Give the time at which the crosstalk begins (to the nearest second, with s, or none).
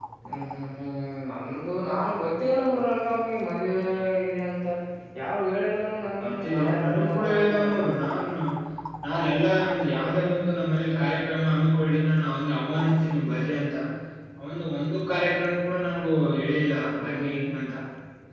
6 s